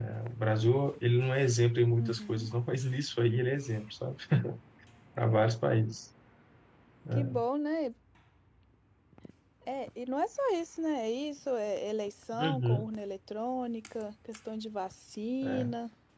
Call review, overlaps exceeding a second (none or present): none